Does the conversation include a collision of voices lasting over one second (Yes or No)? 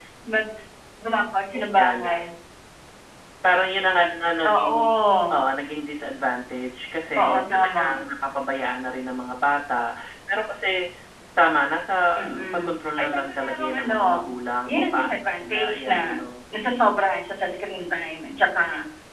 Yes